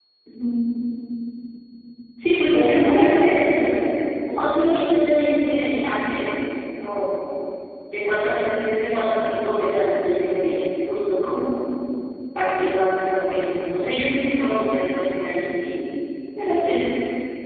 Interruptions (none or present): present